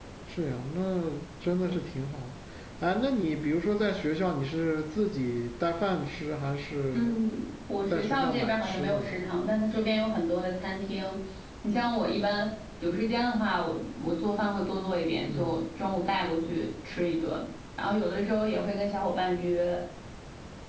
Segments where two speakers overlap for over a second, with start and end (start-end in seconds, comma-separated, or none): 7.8-9.2